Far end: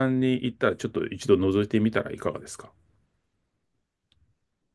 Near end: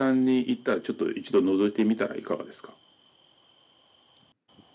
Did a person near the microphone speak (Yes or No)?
No